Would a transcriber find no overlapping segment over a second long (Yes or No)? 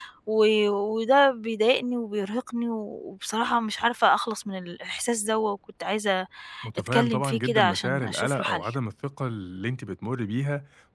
No